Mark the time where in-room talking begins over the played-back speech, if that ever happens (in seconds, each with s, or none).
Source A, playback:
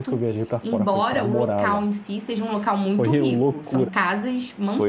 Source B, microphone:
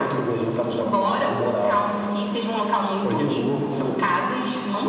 none